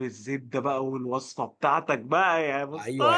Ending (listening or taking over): taking over